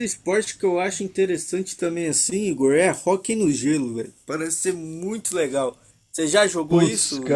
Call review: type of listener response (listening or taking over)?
taking over